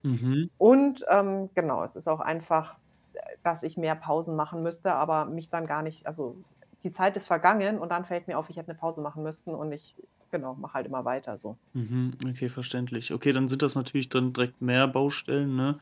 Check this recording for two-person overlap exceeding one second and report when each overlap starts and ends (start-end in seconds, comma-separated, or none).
none